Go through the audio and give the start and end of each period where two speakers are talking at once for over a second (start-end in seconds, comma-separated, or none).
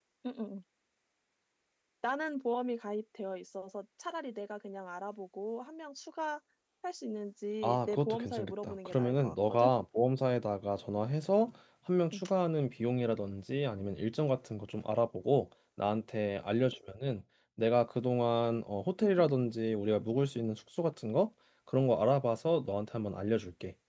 7.6-9.7